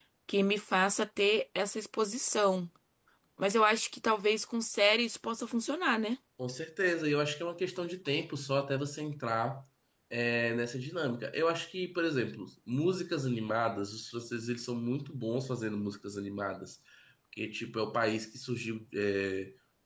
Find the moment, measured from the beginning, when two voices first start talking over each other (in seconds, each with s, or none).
none